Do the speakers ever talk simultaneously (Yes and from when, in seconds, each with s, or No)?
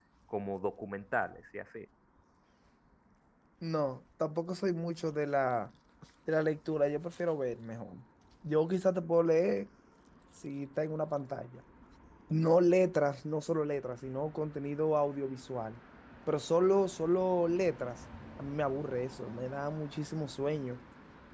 No